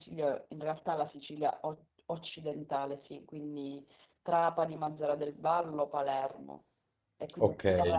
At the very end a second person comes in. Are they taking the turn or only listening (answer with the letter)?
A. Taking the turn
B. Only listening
B